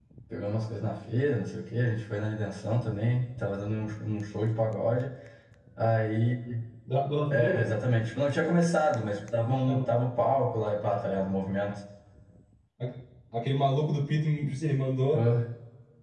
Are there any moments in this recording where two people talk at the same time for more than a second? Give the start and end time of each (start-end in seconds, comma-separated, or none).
none